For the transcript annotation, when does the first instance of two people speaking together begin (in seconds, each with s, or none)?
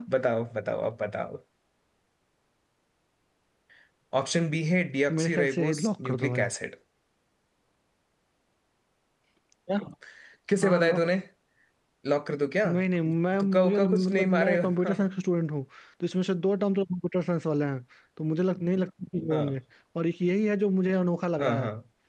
5.1 s